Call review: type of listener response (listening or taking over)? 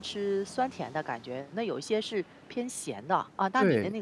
taking over